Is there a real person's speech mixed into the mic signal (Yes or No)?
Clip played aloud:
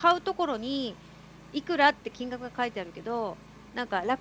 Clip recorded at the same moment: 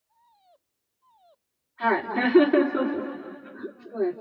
Yes